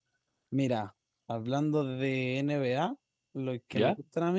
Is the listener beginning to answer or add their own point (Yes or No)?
No